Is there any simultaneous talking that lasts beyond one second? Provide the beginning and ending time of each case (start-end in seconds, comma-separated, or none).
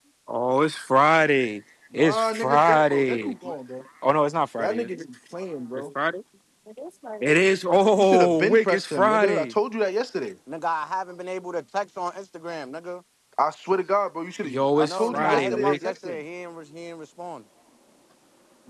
1.9-3.3, 8.0-9.5, 14.4-16.2